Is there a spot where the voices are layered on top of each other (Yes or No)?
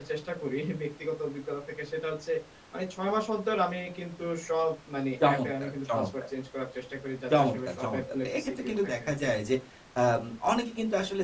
Yes